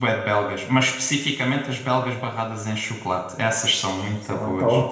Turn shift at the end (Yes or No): Yes